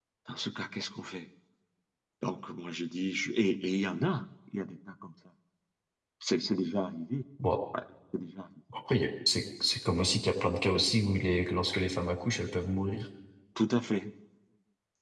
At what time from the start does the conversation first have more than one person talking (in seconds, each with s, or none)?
none